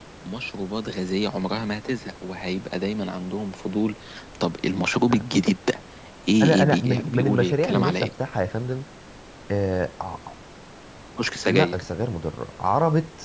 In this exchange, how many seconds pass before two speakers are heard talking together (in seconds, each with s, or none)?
6.4 s